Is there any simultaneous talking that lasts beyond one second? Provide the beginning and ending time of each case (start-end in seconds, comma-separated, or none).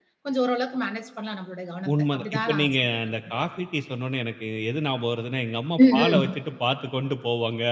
1.9-3.4